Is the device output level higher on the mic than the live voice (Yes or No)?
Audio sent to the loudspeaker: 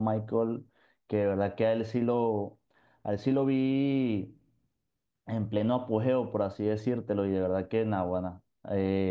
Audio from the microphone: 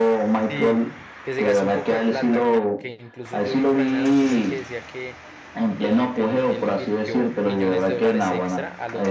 Yes